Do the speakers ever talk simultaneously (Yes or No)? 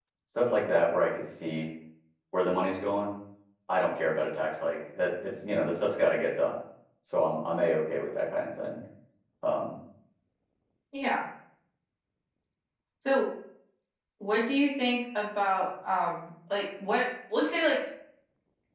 No